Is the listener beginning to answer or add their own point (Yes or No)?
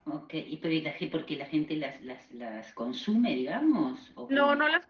Yes